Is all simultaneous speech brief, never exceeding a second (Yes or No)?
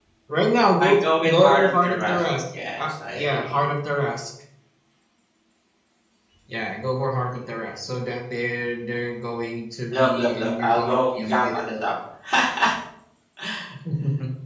No